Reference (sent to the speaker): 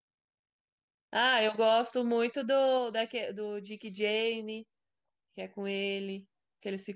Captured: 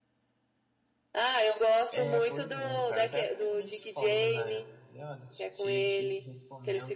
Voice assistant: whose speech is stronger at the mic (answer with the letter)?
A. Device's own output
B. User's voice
A